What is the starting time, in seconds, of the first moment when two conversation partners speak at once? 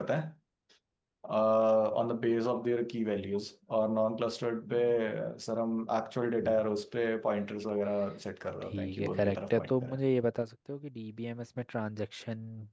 9 s

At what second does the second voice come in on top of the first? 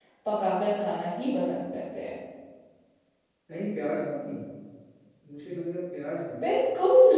none

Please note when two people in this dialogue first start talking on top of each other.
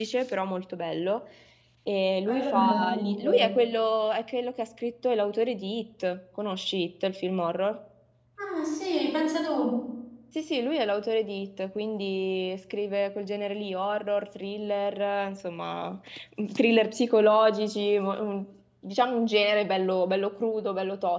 2 s

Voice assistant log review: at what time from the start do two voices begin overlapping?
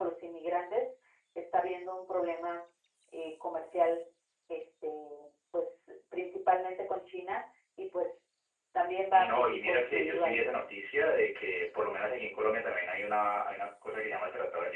9 s

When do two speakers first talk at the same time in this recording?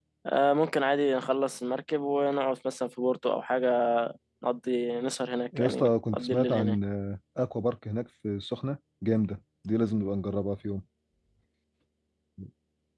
6 s

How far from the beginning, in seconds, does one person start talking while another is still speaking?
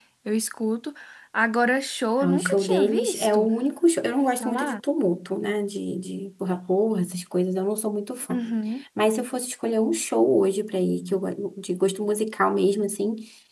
2 s

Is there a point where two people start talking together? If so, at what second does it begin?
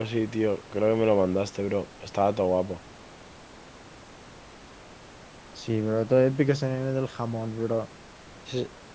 none

